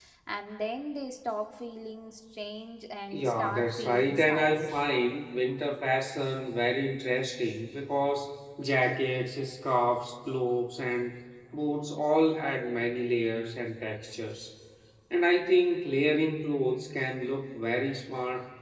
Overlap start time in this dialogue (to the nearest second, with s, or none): 3 s